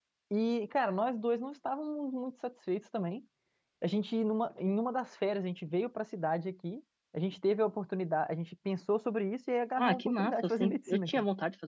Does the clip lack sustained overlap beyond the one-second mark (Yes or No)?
No